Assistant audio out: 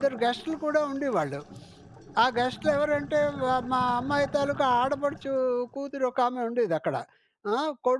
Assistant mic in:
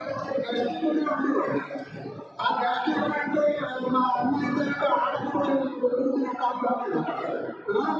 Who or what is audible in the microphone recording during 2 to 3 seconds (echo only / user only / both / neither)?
echo only